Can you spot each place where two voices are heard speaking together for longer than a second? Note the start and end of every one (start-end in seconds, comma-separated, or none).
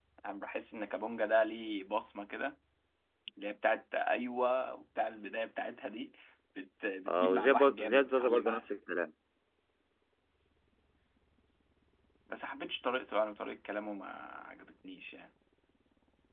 7.1-8.7